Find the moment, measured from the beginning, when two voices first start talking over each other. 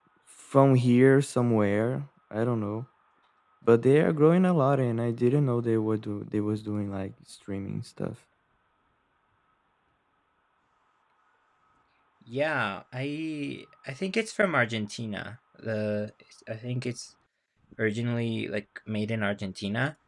none

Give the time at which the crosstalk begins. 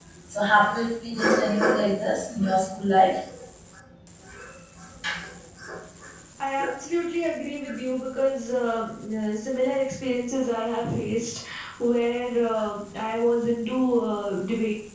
none

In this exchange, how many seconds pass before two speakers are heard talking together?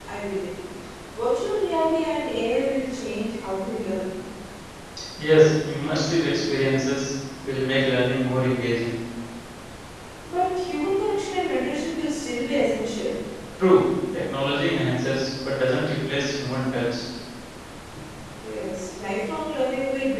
none

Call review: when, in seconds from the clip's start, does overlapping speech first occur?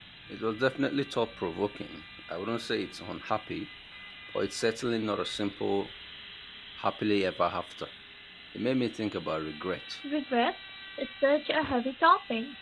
none

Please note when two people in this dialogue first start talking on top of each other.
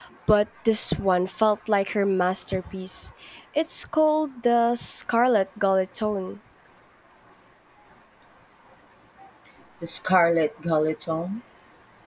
none

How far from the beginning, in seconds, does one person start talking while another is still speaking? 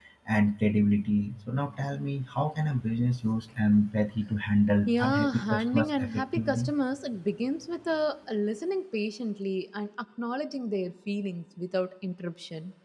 4.9 s

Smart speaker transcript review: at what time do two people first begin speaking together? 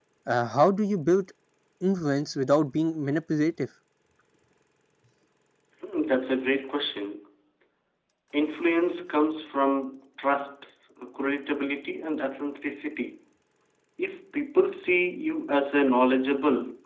none

